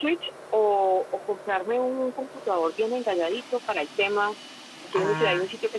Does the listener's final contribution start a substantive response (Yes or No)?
No